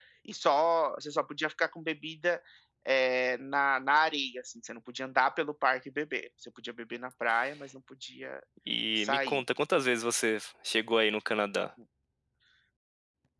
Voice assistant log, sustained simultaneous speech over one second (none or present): none